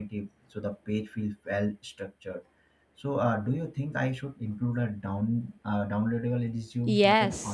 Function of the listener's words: taking over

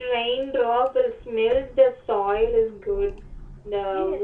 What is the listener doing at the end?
taking over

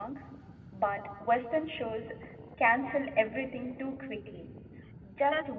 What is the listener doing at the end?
listening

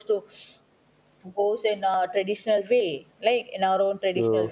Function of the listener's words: listening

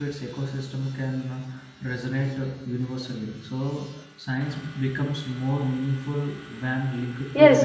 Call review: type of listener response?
taking over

